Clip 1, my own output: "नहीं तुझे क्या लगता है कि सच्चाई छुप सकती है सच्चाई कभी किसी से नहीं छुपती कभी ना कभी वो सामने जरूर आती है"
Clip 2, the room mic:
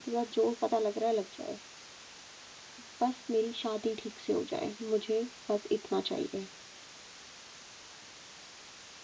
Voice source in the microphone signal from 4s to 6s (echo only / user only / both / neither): user only